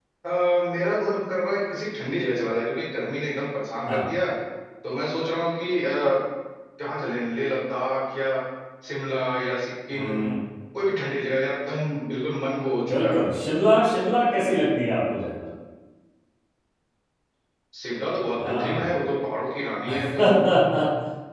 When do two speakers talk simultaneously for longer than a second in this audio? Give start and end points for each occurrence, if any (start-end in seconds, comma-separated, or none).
none